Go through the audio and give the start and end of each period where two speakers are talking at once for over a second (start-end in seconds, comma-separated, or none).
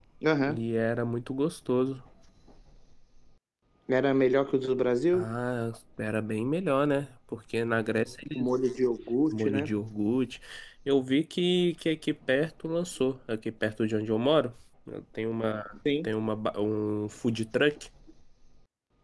none